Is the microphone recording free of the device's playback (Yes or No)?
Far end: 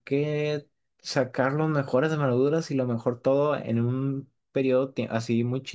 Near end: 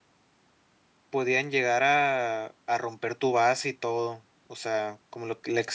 Yes